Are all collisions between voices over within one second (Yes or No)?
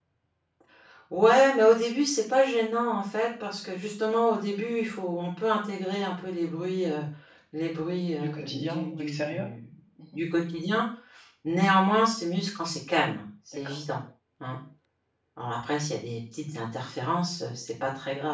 No